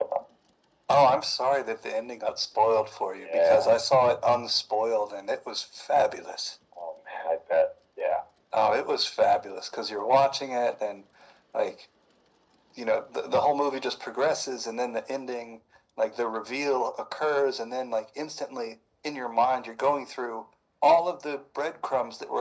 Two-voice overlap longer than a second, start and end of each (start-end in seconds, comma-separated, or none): none